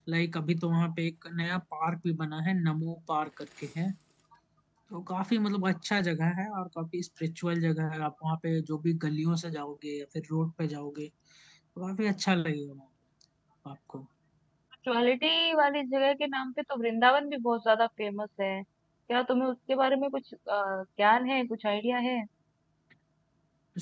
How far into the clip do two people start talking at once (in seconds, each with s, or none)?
none